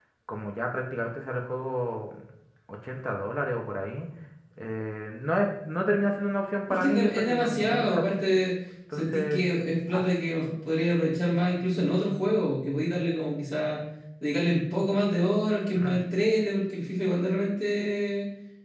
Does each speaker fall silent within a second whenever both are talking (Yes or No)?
No